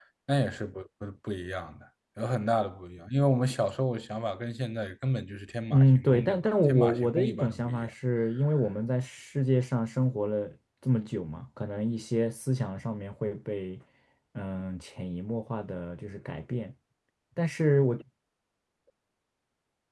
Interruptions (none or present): present